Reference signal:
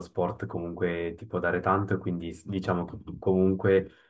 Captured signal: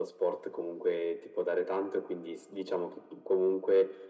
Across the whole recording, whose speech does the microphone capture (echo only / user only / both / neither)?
echo only